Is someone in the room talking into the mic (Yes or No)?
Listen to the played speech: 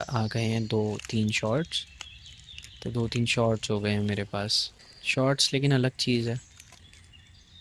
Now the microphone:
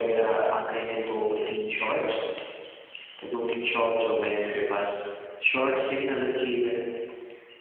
No